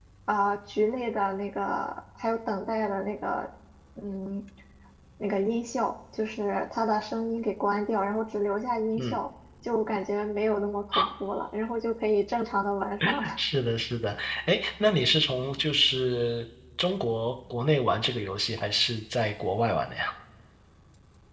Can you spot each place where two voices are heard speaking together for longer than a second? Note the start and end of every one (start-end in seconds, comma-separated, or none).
none